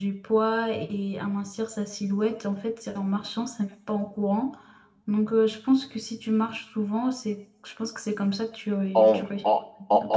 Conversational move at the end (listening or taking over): taking over